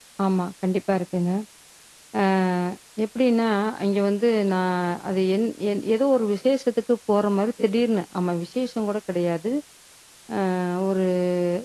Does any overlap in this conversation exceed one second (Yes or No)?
No